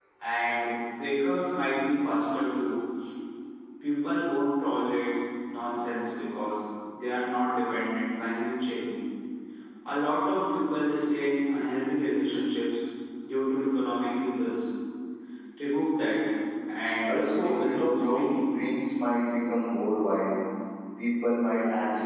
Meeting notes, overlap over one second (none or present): present